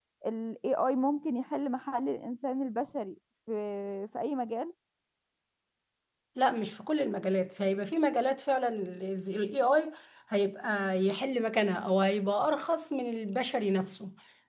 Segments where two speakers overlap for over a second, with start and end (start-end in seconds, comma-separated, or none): none